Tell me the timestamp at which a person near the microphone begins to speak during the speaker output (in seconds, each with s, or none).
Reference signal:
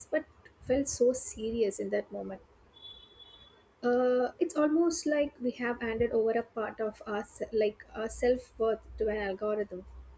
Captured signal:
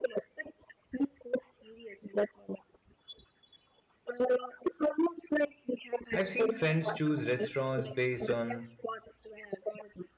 6.1 s